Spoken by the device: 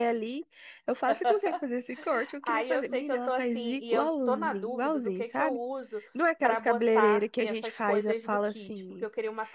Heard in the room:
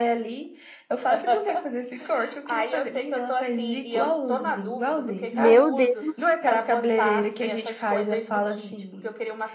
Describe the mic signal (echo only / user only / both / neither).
both